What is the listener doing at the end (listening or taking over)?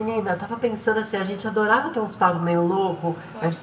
listening